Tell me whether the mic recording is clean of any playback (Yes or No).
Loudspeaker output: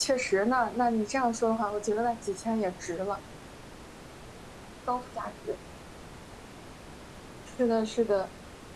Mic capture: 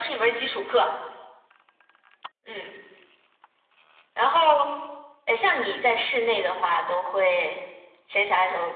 Yes